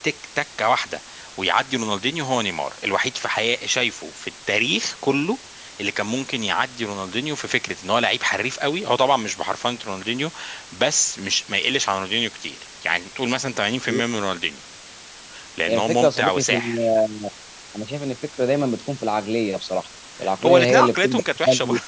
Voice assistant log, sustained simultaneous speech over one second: present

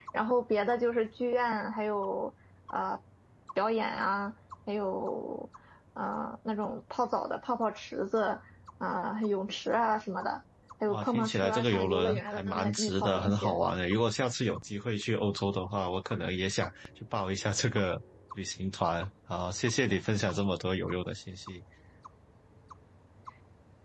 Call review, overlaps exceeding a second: present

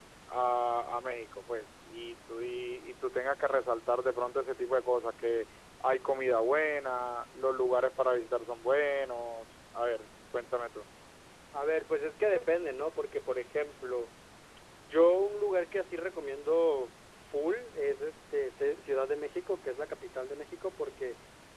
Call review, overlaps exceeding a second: none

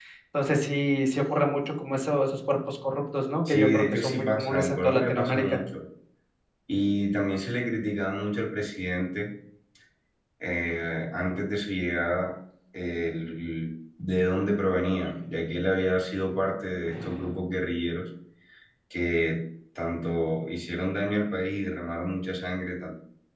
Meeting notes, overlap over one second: present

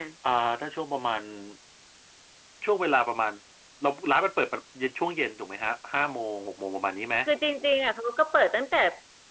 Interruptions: none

